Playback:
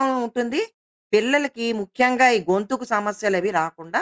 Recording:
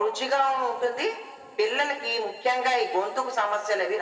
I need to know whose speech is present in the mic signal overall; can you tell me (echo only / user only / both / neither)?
echo only